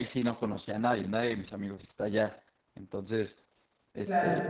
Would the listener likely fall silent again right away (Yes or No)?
Yes